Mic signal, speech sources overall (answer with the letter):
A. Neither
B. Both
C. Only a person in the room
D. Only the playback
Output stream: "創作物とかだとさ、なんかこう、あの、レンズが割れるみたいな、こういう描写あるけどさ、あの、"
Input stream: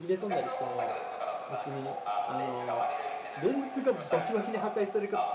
B